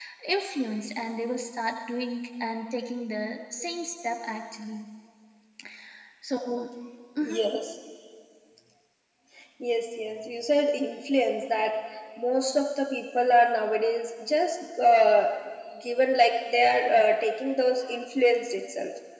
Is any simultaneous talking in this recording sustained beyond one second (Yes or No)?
No